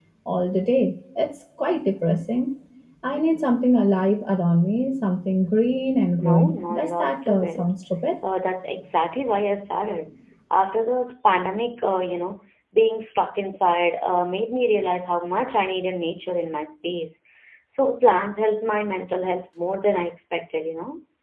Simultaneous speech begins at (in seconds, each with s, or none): 6.2 s